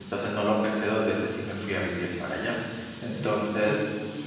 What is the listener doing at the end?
taking over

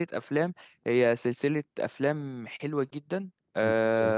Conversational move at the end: listening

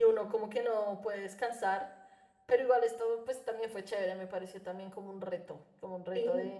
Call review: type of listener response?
listening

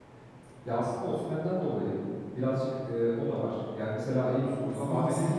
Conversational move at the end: taking over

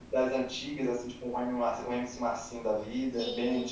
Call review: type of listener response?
taking over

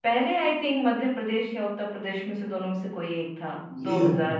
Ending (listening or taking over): taking over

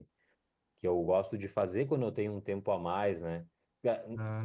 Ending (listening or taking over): listening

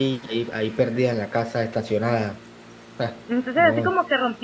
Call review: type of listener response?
taking over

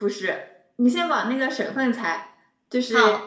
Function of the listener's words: listening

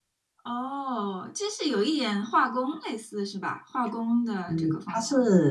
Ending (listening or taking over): taking over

